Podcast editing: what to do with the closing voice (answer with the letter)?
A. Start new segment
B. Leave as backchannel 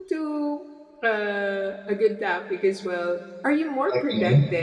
B